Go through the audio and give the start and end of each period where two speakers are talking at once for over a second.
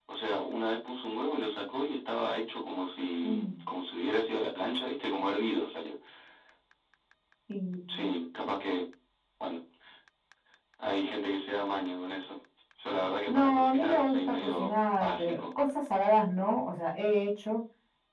13.3-15.5

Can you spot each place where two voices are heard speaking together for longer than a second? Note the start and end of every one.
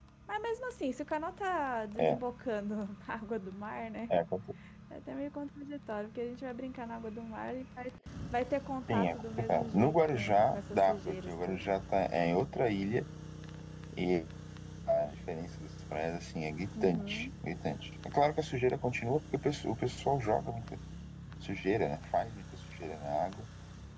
8.9-11.7

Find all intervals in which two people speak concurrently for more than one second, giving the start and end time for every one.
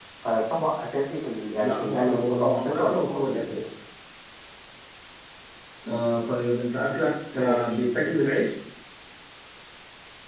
1.6-3.6

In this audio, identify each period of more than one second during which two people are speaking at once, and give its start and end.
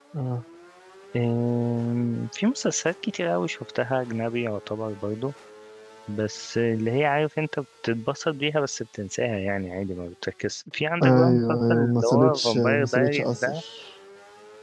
11.0-13.6

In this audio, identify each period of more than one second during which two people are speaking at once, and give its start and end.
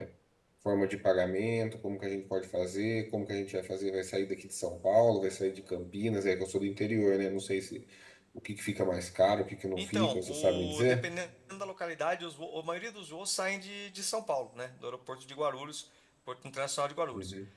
9.8-11.1

